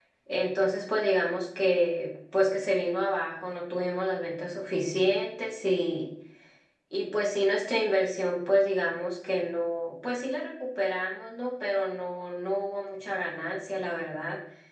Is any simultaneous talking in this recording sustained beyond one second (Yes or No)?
No